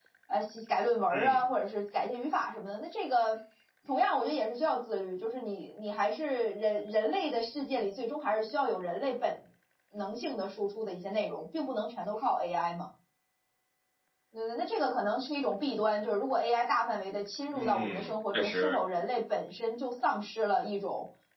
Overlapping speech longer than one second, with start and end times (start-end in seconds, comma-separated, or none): 17.5-18.8